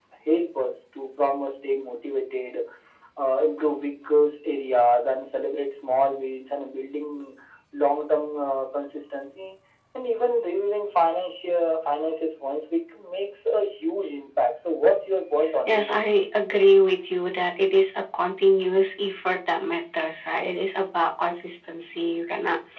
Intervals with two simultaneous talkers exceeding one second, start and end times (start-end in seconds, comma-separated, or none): none